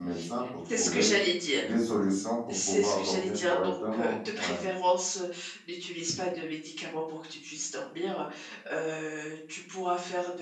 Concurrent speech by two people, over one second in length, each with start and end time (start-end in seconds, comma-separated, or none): 2.5-4.6